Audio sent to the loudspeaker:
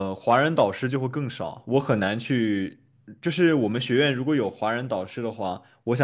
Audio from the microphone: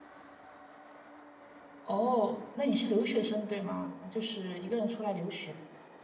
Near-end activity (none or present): present